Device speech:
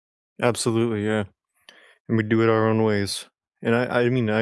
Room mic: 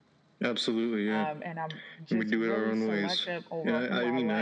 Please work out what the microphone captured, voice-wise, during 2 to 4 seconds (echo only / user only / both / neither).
both